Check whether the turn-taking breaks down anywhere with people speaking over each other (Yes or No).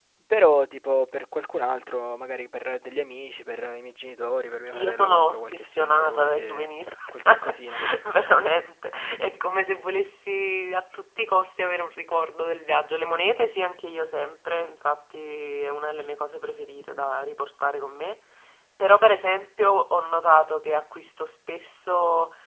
Yes